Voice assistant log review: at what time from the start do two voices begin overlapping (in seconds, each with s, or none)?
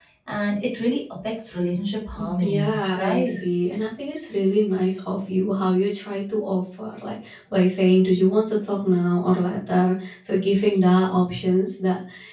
2.1 s